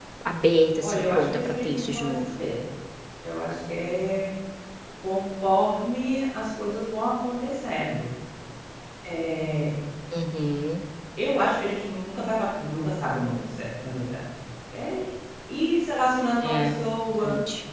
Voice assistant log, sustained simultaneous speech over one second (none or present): present